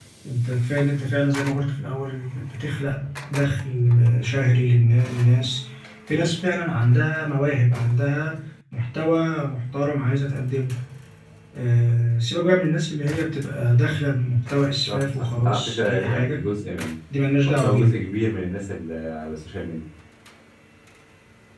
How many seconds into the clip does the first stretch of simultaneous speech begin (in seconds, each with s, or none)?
14.9 s